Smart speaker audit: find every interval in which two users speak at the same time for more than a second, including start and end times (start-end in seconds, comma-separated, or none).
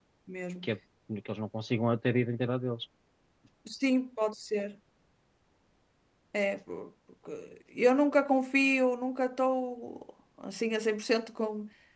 none